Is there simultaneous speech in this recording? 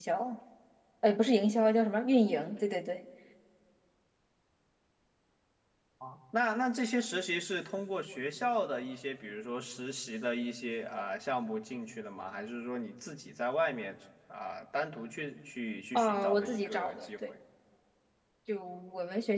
Yes, from 15.9 s

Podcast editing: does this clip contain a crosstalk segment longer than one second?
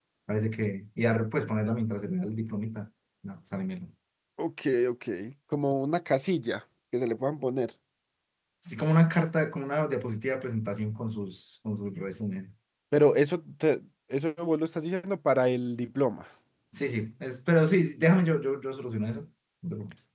No

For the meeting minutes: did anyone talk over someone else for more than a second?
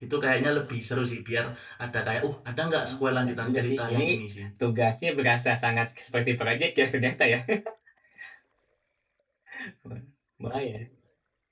Yes, from 2.8 s

